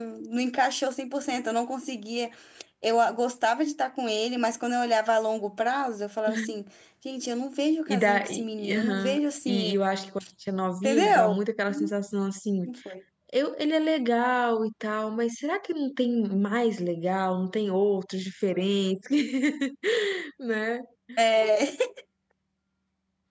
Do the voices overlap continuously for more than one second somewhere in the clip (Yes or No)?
Yes